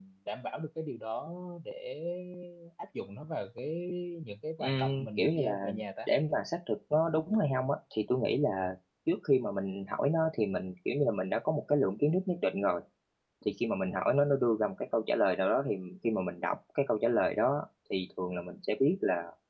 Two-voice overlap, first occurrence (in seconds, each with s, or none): 4.6 s